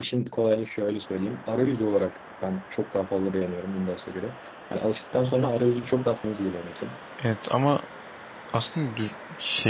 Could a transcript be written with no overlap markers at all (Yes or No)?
Yes